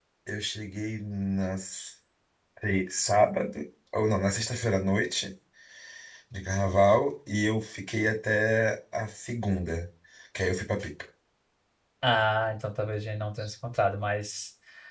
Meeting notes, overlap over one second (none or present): none